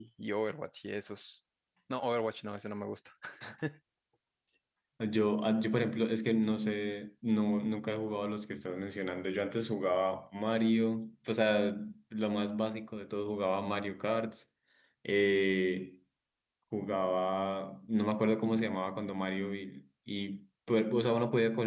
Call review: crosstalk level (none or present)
none